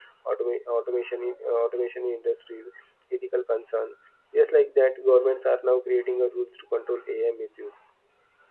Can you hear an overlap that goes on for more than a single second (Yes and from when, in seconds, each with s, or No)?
No